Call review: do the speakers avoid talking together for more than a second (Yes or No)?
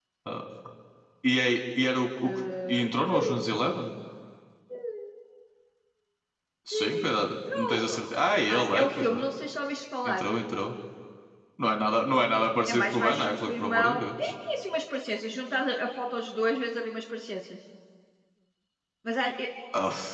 No